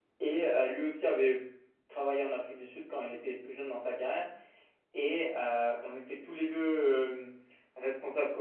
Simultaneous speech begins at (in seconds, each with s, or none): none